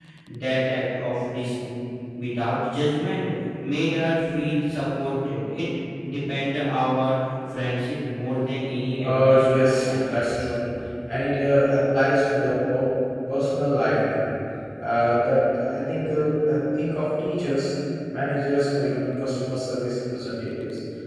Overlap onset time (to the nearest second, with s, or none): 9 s